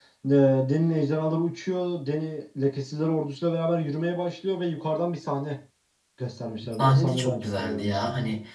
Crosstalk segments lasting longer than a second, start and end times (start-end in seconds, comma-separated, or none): 6.7-8.0